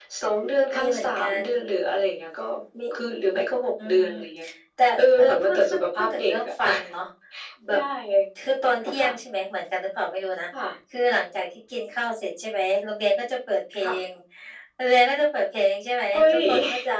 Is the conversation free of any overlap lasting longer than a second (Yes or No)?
No